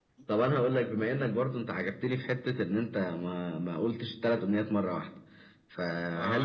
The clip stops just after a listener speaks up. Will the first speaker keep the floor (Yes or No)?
Yes